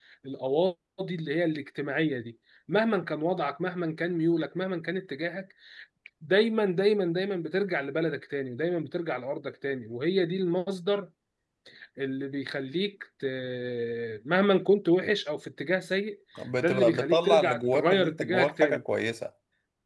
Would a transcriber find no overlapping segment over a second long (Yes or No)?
No